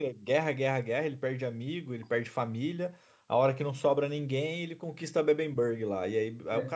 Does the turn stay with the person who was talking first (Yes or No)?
Yes